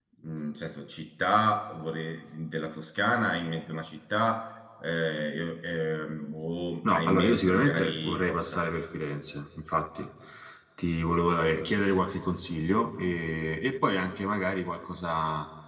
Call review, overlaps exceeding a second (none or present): present